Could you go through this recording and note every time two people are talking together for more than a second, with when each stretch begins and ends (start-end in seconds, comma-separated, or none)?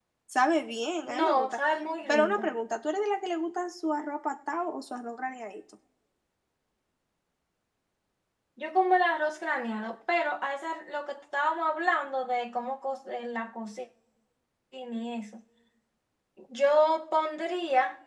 none